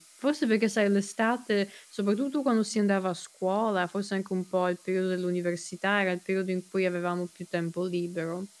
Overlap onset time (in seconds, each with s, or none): none